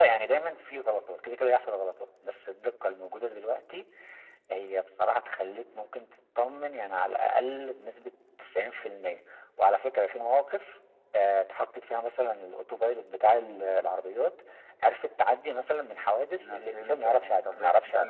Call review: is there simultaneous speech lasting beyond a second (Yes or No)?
Yes